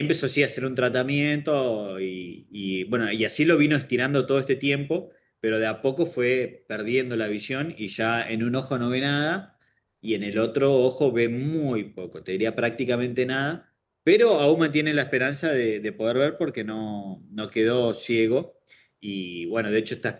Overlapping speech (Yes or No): No